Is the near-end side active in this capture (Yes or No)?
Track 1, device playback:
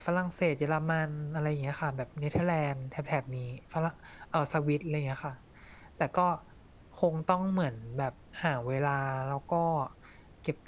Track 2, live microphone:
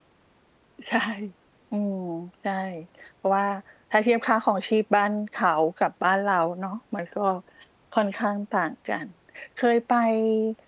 Yes